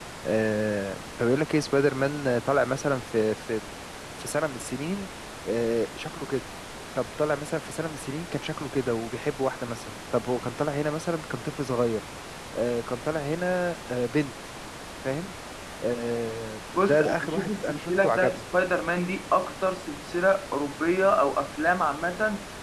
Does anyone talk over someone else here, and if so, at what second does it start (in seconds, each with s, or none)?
16.8 s